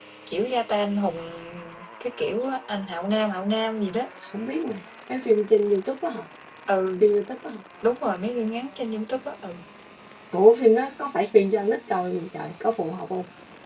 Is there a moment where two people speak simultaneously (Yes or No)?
No